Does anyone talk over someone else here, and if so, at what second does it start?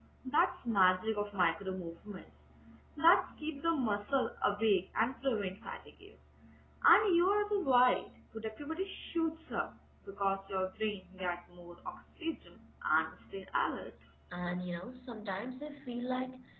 none

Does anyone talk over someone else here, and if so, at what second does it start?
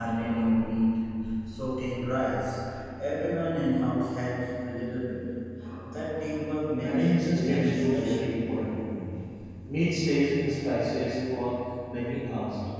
6.8 s

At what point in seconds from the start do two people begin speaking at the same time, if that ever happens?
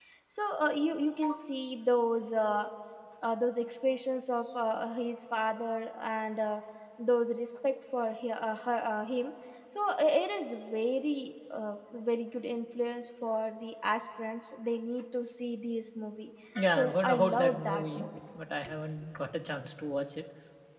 16.7 s

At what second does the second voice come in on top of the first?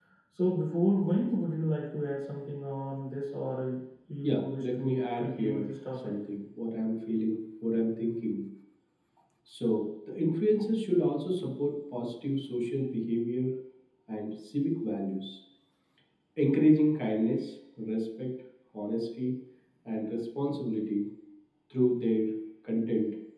4.2 s

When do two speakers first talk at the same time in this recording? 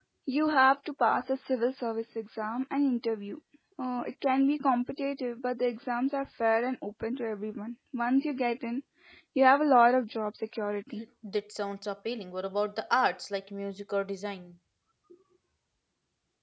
none

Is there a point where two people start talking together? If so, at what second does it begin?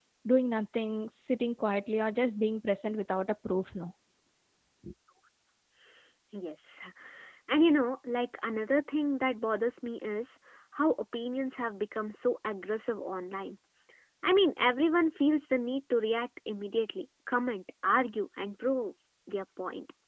none

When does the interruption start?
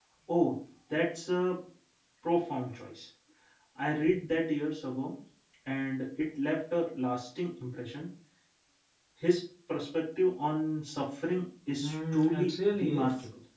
11.8 s

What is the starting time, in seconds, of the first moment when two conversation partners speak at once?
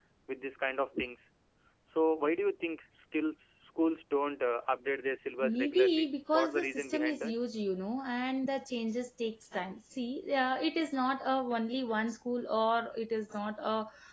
5.4 s

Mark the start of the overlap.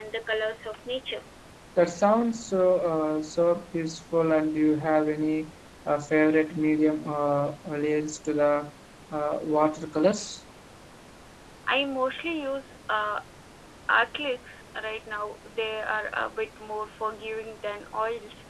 none

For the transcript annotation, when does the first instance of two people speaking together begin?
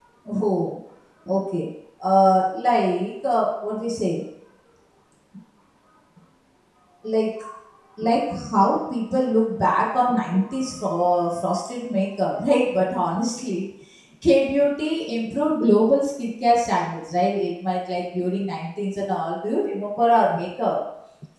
none

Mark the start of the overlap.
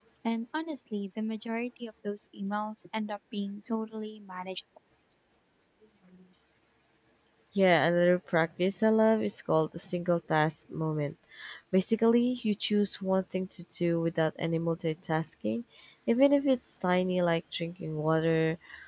none

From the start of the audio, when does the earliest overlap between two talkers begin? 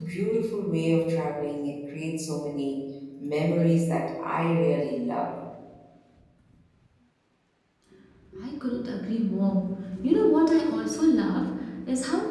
none

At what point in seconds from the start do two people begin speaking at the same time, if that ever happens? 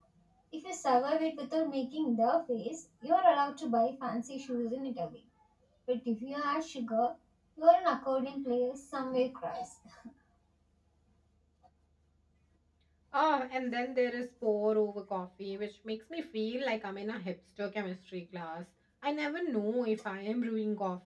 none

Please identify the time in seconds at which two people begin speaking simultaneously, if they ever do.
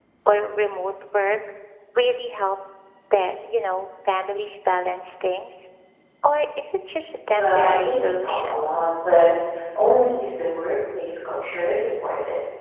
7.3 s

